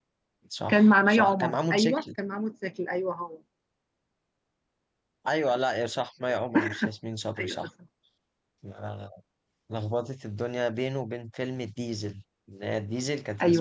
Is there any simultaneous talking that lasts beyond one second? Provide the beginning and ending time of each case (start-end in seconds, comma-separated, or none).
0.7-2.0